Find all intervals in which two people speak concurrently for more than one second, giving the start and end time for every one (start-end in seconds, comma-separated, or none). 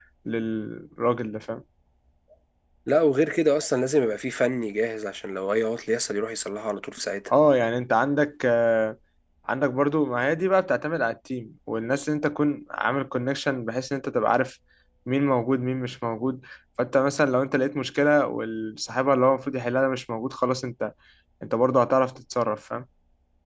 none